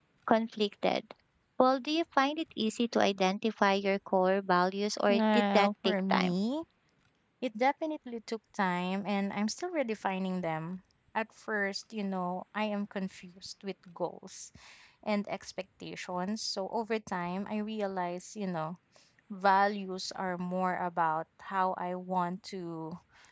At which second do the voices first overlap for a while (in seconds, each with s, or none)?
5.1 s